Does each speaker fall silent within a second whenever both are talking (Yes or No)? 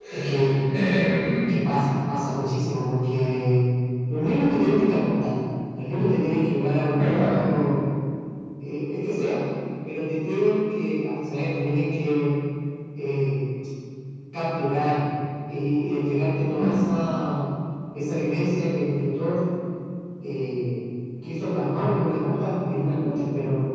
Yes